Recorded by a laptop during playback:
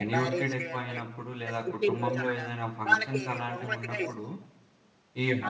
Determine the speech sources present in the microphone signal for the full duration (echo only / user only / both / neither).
both